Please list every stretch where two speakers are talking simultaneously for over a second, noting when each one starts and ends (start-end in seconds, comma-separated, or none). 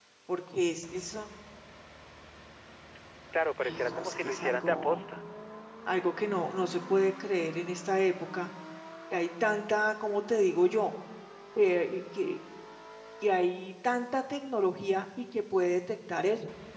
3.6-5.0